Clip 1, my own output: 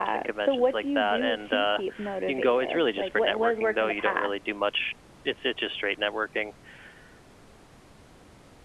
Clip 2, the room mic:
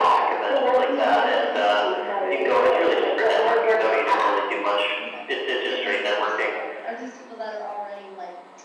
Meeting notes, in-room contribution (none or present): present